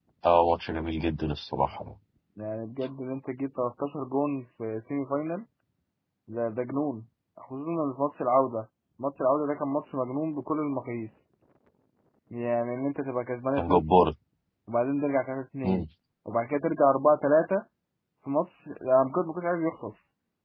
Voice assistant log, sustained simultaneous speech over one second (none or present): none